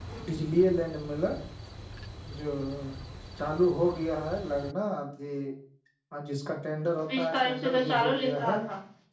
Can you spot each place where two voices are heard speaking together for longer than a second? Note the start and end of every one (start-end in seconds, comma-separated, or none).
7.2-8.6